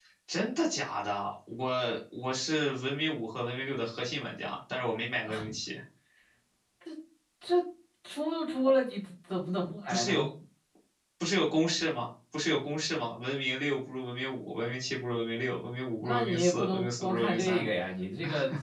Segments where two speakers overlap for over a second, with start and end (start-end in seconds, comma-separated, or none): 16.0-17.6